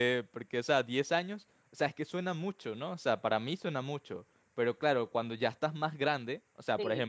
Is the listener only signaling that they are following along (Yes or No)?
Yes